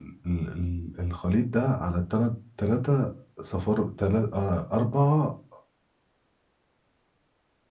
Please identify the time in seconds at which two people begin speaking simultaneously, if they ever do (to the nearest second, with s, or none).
none